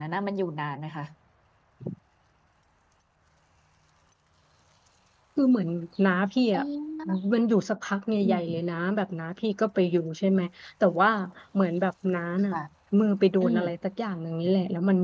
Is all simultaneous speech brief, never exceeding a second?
Yes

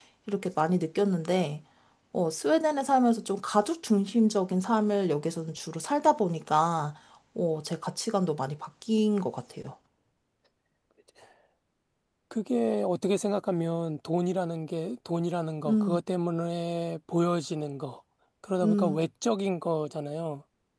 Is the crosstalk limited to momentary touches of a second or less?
Yes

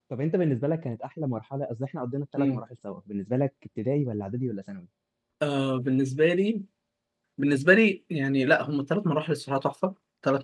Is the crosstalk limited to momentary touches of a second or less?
Yes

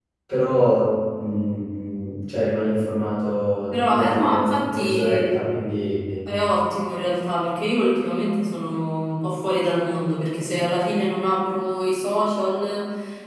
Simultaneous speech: Yes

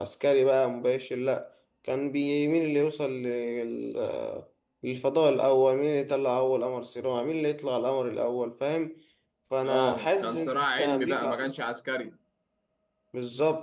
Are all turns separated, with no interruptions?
No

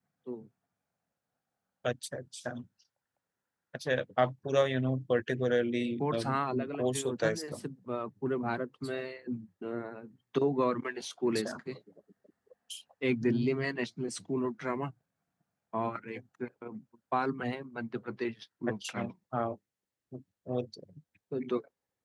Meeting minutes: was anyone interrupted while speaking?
Yes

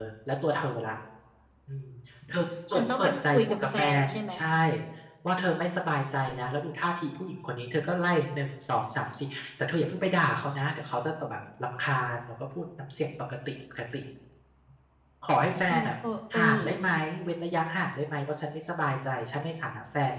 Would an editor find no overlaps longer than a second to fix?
No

